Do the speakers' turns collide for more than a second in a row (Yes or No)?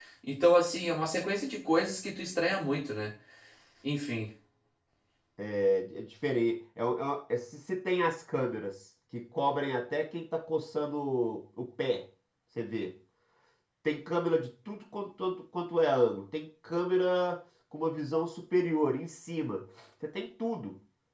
No